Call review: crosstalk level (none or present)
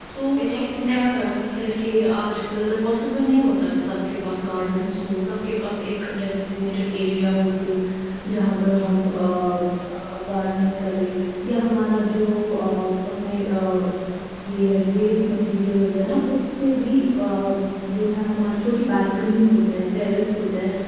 present